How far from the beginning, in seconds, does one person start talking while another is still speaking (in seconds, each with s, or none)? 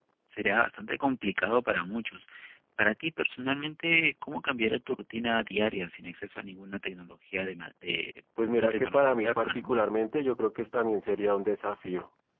8.4 s